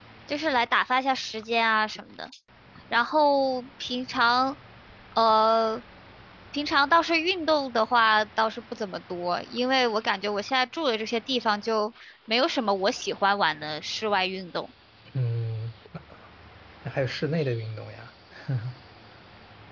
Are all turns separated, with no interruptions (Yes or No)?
Yes